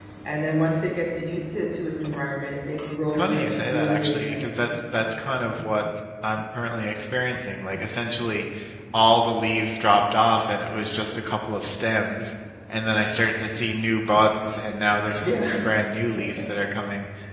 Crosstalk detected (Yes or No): Yes